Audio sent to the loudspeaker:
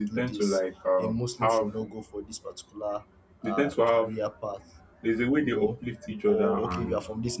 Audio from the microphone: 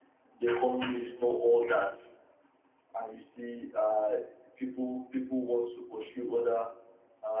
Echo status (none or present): none